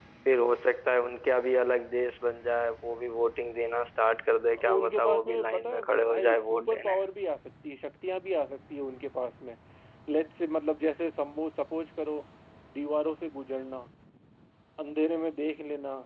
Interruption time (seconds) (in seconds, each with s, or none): 4.5 s